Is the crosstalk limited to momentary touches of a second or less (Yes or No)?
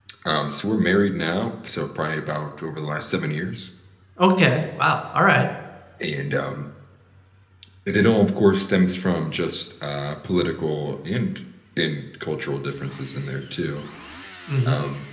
Yes